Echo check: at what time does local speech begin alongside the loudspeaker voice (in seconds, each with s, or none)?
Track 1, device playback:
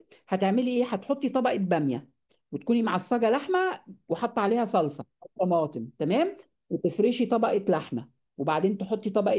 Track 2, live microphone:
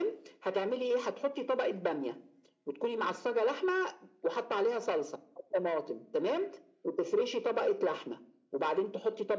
none